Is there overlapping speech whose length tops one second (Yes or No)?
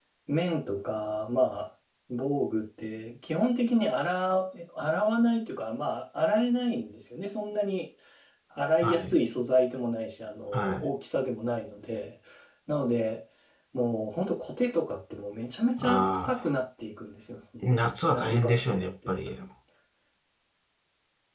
Yes